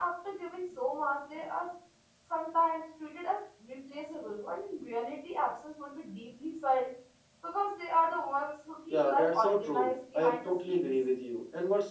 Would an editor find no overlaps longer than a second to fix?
No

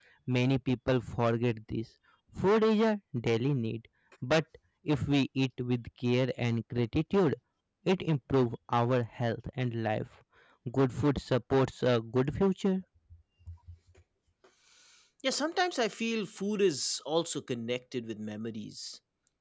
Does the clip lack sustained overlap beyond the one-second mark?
Yes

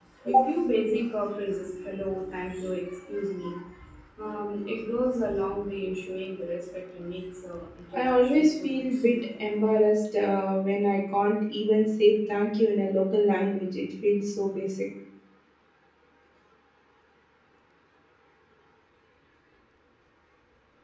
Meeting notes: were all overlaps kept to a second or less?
No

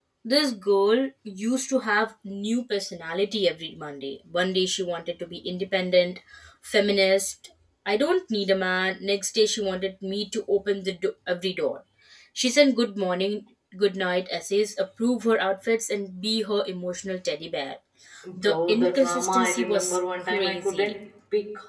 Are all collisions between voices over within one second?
No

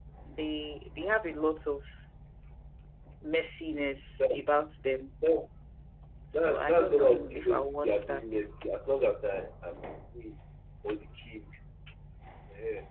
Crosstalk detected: Yes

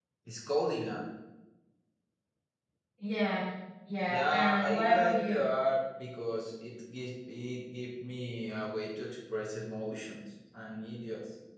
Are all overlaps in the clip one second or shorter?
No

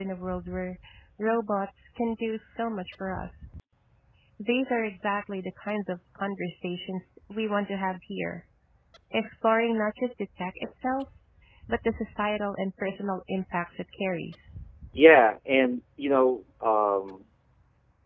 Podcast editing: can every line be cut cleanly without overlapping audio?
Yes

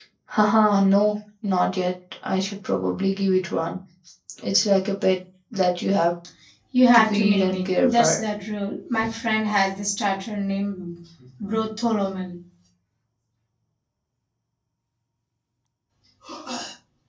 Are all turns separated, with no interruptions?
No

